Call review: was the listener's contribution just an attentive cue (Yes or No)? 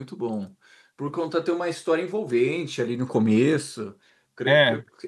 Yes